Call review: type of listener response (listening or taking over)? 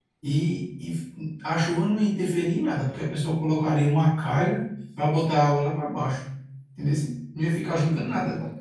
taking over